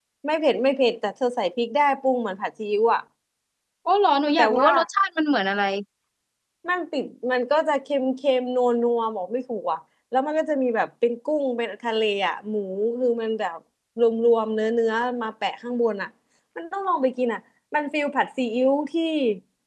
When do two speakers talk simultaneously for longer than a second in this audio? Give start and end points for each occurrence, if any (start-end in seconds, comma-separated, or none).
none